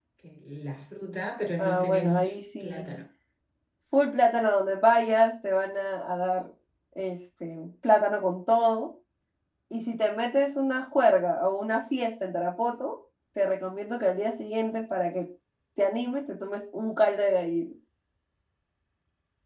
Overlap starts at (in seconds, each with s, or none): 1.6 s